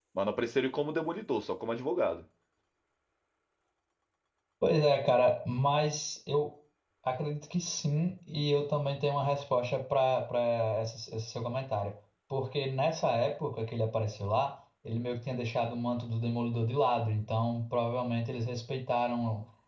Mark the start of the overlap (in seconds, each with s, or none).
none